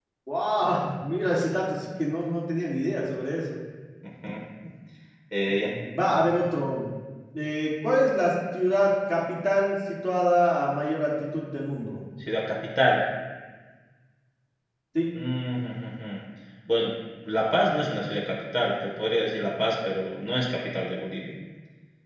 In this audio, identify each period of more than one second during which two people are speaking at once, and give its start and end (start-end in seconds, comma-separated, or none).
none